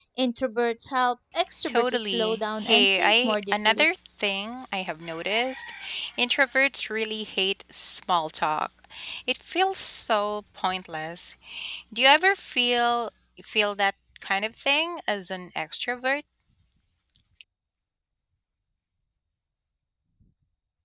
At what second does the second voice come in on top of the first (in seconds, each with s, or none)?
1.6 s